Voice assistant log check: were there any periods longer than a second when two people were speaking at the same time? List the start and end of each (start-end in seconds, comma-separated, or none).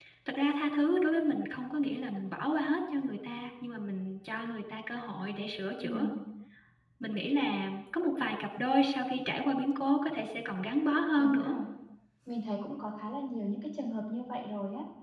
none